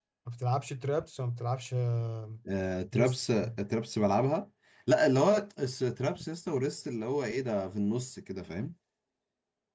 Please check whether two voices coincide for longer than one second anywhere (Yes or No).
No